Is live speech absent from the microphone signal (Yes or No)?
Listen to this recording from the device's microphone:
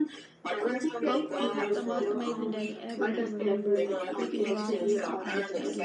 No